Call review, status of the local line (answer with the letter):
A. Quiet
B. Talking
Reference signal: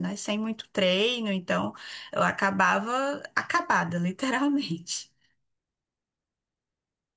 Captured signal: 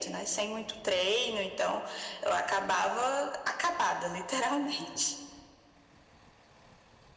A